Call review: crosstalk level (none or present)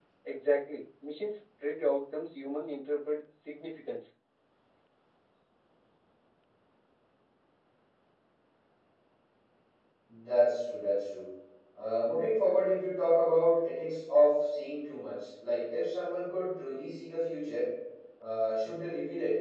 none